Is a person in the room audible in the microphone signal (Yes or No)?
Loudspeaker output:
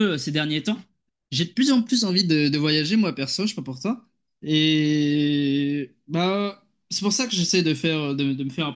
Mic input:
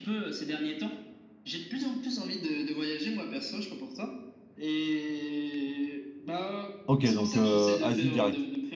Yes